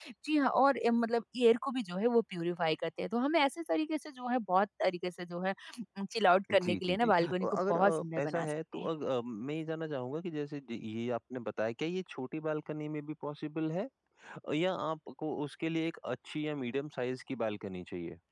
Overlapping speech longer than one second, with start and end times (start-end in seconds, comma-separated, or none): 6.5-8.9